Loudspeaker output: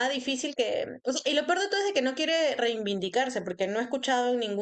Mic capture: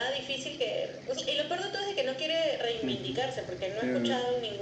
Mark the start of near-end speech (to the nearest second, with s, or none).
3 s